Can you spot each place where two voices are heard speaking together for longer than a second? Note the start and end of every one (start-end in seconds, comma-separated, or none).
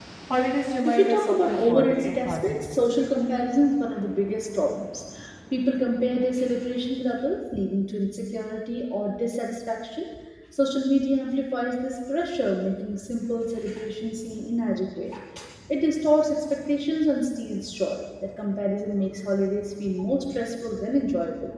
0.8-2.8